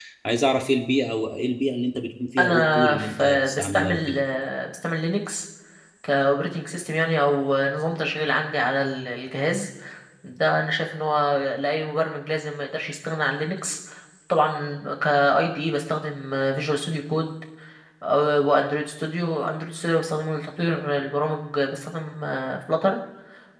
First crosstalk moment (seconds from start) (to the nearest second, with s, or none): 2 s